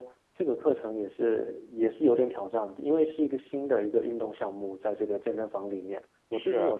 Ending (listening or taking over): listening